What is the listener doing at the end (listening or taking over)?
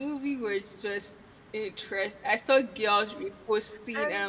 listening